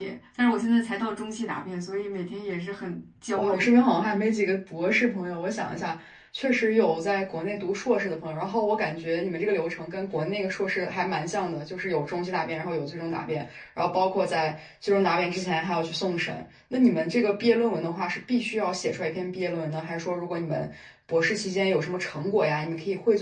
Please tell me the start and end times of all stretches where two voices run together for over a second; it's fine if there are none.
none

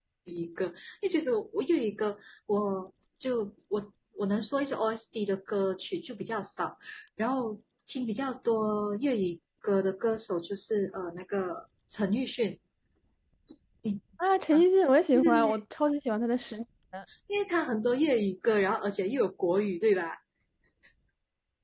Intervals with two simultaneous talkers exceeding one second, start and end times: none

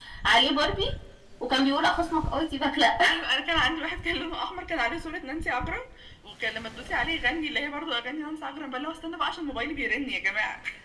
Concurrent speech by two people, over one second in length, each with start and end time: none

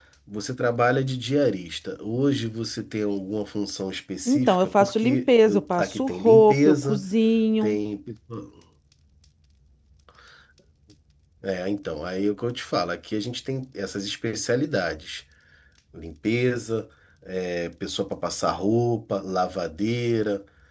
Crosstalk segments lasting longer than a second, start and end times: 4.3-7.0

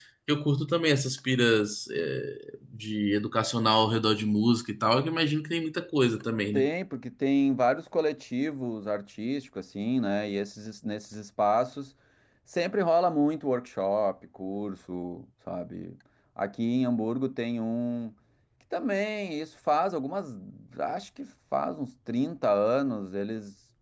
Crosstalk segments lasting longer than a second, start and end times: none

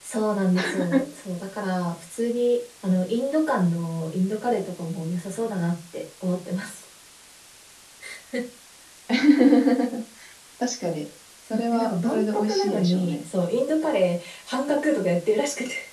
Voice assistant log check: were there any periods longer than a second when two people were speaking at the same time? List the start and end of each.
11.5-13.2

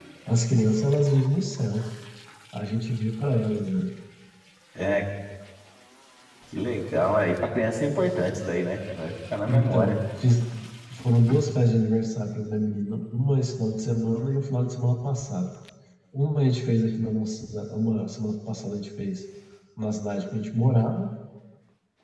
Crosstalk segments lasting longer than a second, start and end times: none

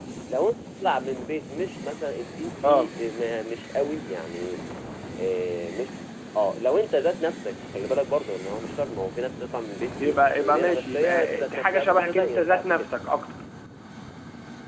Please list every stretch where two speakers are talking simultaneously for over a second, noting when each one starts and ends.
10.0-12.9

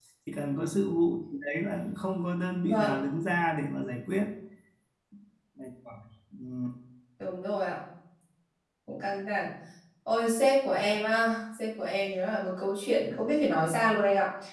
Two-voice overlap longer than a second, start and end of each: none

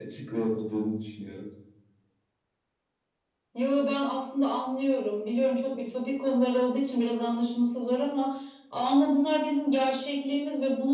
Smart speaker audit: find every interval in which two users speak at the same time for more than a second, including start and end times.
none

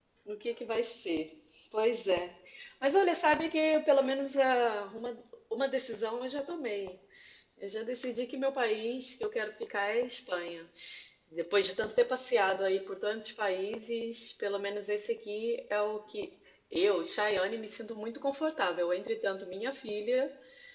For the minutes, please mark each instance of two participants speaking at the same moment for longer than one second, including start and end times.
none

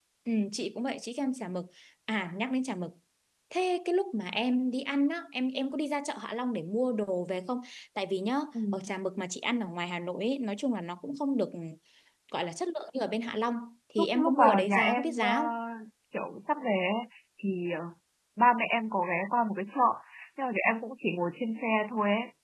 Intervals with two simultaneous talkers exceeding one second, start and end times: 14.0-15.3

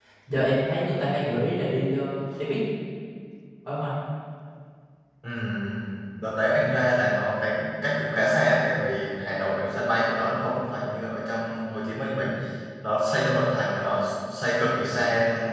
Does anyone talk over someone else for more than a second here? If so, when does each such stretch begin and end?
none

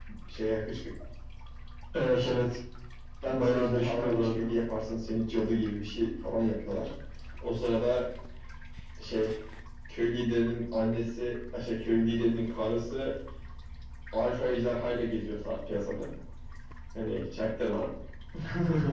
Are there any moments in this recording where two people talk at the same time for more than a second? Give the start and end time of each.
3.3-4.5

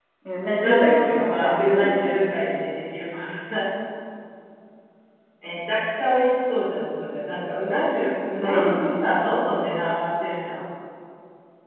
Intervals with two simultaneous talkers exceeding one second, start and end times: 0.6-2.3

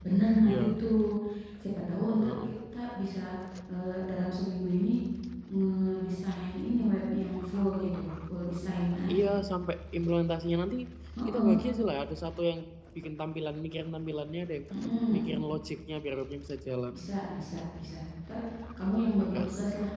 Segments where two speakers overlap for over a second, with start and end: none

